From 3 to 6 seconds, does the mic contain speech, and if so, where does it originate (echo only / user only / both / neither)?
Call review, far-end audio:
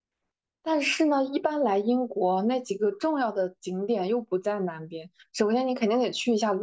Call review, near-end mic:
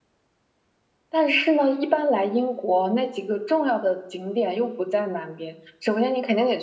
echo only